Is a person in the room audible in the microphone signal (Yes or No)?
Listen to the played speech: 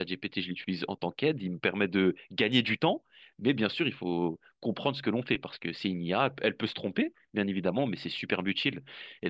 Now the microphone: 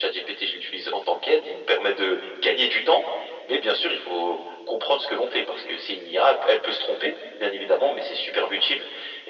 No